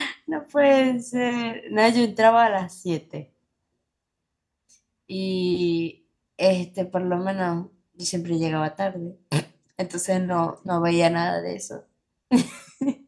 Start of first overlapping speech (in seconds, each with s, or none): none